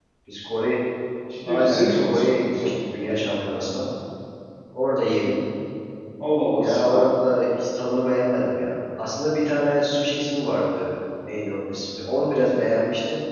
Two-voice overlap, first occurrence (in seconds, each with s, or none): 1.5 s